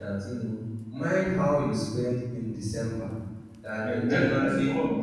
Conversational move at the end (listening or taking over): taking over